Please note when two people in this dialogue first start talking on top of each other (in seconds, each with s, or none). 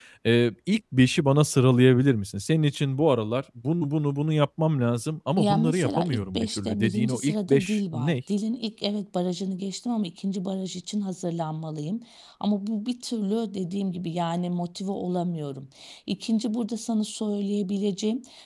5.4 s